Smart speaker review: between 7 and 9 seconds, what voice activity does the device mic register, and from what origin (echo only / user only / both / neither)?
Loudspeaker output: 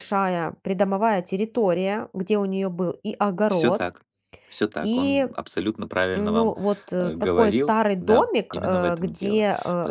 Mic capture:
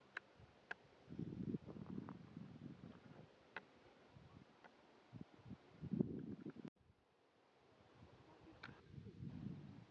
neither